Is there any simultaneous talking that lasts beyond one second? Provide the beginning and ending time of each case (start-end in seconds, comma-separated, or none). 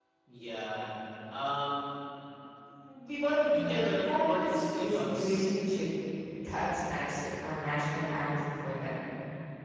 3.5-5.5